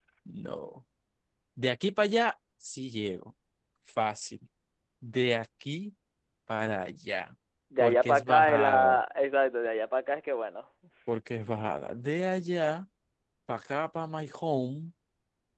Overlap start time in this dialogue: 7.8 s

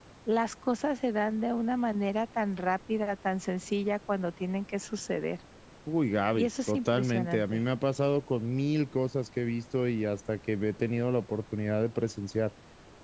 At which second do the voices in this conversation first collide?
6.3 s

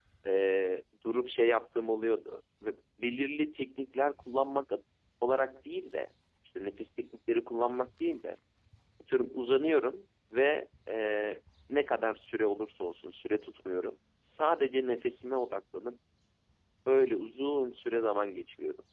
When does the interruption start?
none

